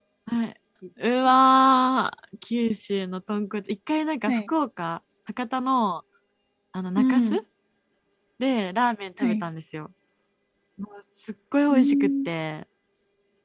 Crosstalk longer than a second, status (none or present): none